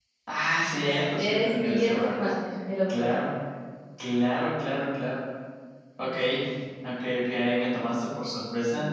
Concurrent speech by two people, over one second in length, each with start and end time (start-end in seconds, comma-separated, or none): 0.8-2.3